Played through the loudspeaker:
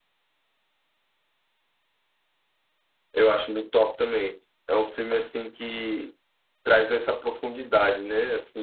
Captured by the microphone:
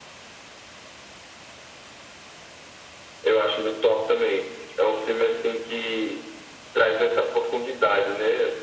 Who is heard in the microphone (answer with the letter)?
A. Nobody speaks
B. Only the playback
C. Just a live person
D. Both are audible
B